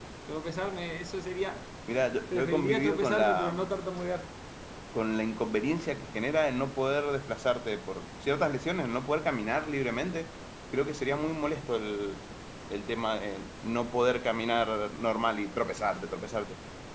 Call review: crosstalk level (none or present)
present